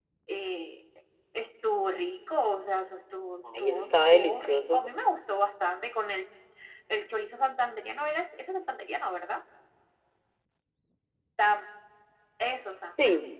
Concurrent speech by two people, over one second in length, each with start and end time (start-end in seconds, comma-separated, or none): 3.6-4.9